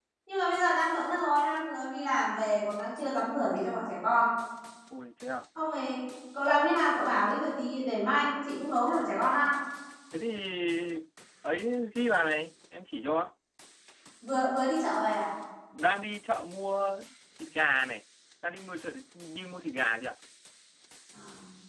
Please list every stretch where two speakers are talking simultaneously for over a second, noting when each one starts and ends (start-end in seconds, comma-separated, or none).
none